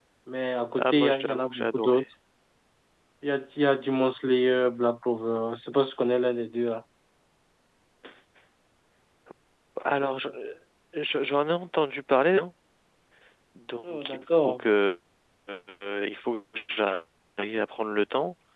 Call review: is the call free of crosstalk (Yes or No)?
No